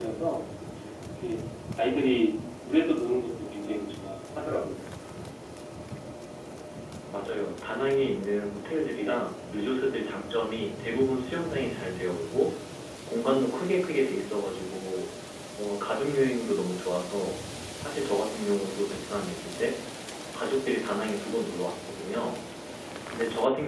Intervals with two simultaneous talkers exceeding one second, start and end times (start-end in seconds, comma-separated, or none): none